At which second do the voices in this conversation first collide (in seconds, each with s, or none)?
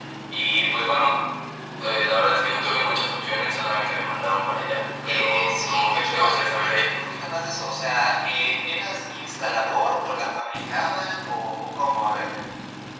5.0 s